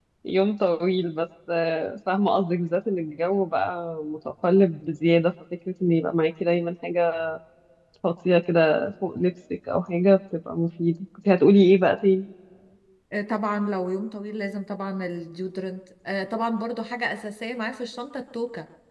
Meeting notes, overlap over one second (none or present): none